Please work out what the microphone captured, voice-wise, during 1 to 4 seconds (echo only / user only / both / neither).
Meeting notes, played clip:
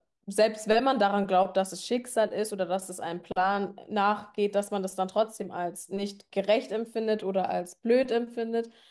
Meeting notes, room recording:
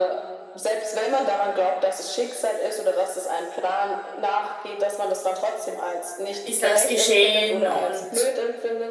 echo only